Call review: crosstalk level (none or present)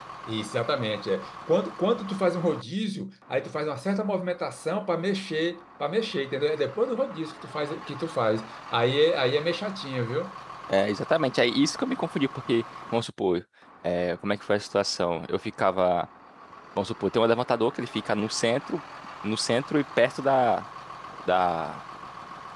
none